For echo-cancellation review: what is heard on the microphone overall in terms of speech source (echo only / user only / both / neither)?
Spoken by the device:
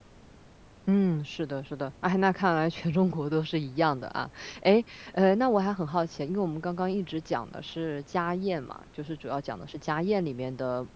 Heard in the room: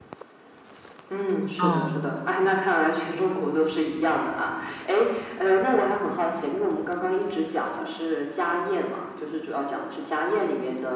both